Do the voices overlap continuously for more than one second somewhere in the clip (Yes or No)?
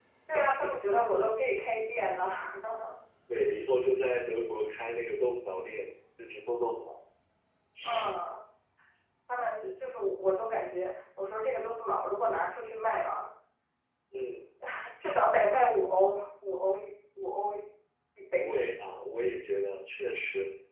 No